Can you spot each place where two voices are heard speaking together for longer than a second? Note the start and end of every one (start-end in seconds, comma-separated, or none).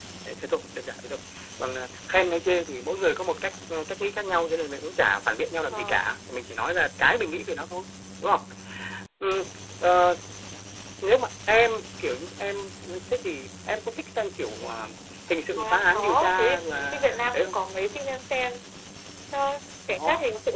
15.6-17.6